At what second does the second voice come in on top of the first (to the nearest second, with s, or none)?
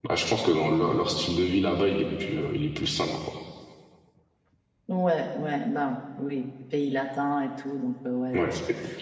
none